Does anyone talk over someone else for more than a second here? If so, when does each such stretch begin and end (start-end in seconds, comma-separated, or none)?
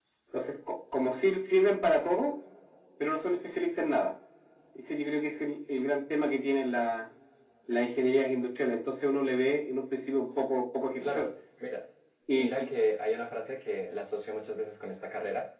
none